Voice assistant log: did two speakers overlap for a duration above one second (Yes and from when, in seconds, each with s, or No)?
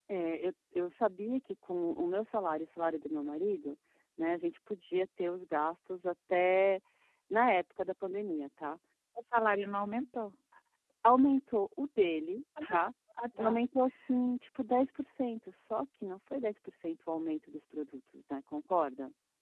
No